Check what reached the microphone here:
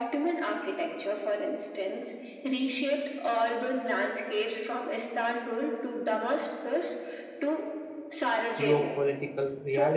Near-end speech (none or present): present